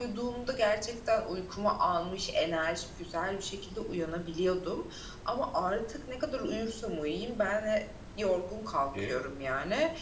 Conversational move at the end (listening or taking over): listening